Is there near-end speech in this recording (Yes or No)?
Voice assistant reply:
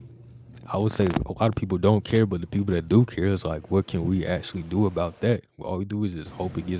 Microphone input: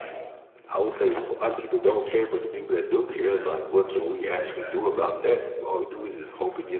Yes